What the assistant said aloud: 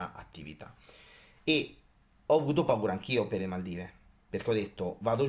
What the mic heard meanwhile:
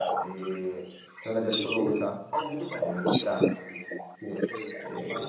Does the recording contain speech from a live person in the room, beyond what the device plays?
Yes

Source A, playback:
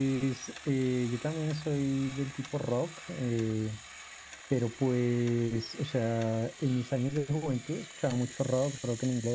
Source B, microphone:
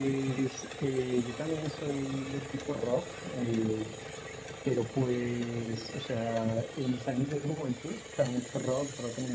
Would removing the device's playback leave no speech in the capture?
Yes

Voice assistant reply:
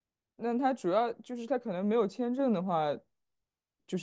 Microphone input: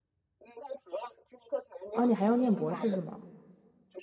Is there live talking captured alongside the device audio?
Yes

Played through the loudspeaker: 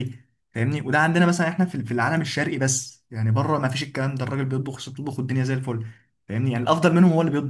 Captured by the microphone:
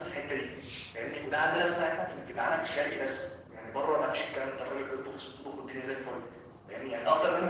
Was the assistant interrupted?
No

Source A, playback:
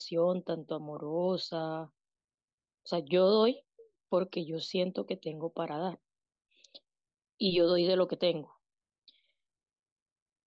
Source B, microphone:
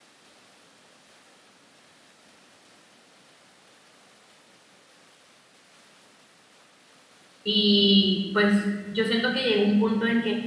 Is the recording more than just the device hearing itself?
Yes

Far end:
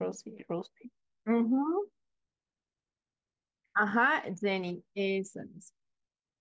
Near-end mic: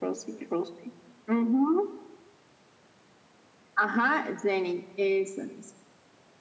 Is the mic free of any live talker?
Yes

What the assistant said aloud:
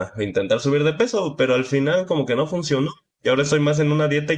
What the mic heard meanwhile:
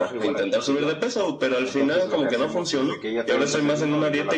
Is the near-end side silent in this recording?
No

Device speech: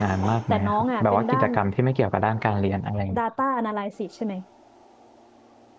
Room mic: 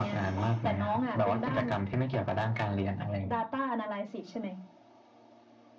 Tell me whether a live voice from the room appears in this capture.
No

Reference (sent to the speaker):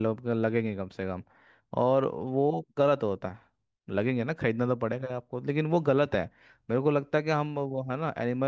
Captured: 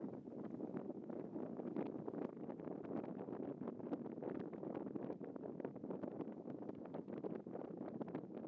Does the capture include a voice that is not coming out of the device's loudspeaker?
No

